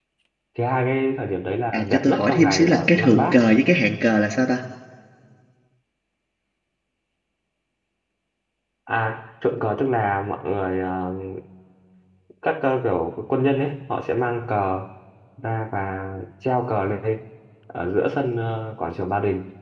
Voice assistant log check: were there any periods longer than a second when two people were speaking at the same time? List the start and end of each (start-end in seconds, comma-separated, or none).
1.7-3.4